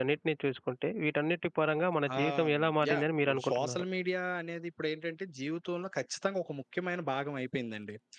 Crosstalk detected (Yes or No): Yes